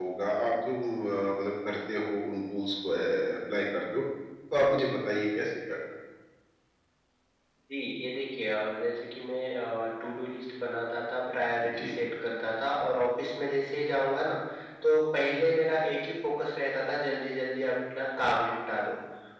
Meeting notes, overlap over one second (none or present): none